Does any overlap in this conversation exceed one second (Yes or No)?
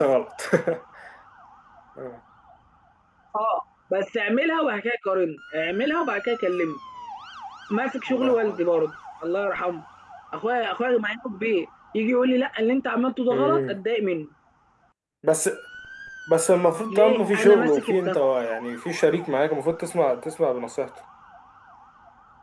Yes